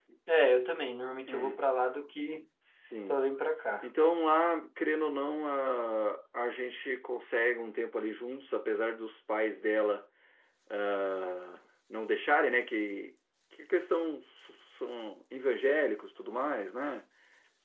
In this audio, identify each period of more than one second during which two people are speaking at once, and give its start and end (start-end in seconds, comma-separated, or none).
none